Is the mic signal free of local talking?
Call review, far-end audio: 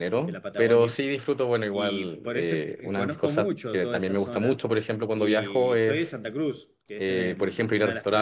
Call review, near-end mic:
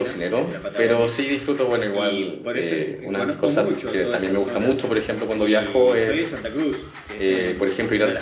Yes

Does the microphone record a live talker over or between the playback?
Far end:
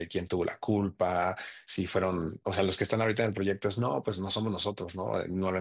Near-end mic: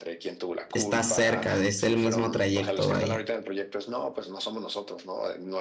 Yes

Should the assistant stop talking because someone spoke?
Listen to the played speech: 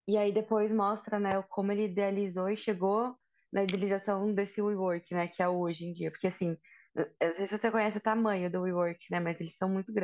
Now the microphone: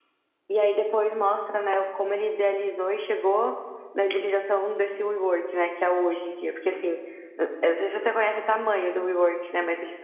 No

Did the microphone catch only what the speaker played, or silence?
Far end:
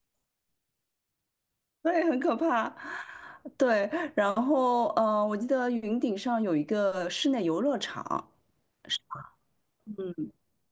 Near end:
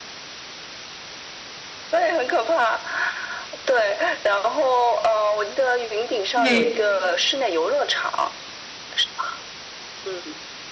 No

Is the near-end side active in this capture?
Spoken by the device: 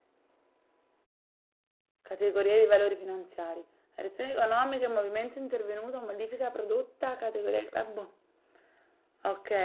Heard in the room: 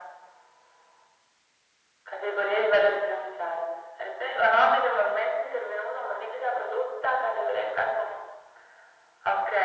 No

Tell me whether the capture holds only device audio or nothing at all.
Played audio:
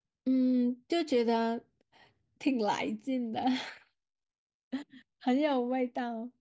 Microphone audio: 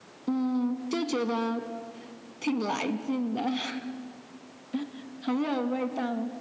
Yes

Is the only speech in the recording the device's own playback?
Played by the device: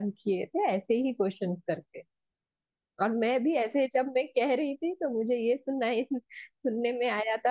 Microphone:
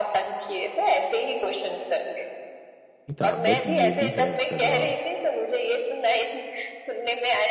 No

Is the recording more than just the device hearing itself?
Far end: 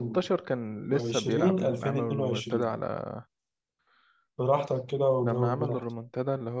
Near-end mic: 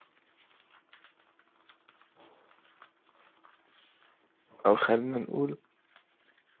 Yes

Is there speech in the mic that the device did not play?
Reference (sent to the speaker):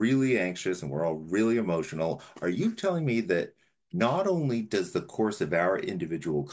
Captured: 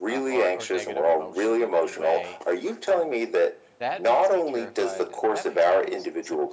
Yes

